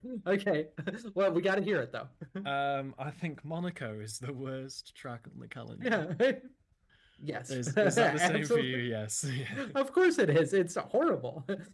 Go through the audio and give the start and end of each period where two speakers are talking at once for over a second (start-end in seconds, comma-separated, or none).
7.5-8.8